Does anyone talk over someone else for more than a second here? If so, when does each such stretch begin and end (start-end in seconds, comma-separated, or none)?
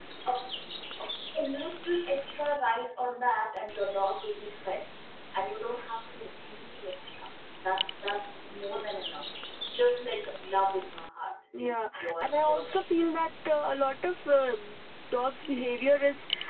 11.6-12.8